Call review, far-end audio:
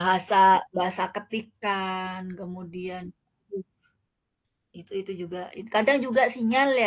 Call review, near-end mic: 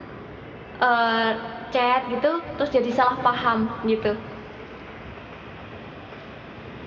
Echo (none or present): none